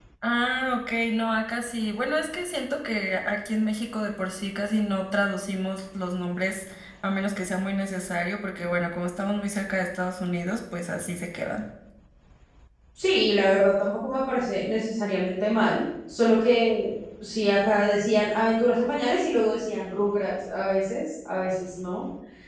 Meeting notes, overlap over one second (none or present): none